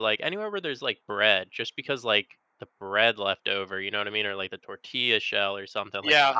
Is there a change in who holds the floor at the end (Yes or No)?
Yes